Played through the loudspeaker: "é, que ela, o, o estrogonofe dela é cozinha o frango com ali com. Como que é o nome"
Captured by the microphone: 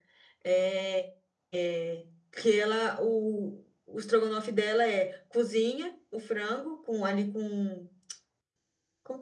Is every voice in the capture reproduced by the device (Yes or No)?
Yes